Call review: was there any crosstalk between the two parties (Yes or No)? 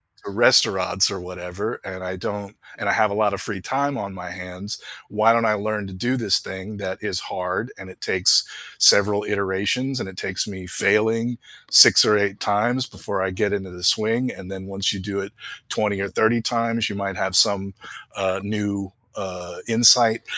No